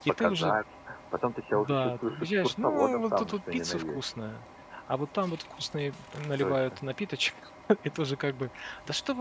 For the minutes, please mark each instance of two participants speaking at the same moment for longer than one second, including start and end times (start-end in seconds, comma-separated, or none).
1.5-4.0